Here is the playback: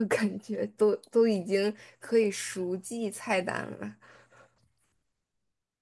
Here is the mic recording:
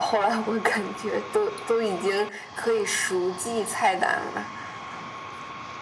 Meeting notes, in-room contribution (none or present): none